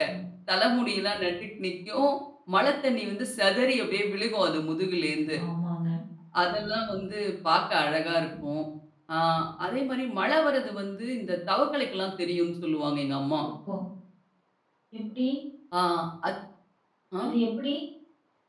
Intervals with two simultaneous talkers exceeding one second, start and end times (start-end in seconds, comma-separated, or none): none